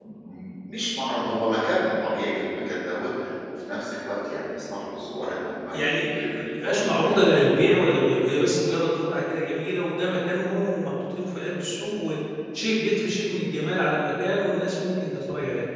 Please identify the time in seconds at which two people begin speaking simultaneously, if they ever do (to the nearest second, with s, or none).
6 s